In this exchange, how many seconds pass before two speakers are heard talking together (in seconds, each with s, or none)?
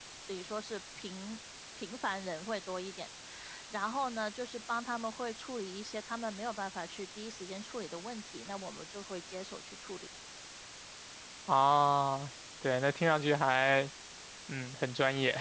none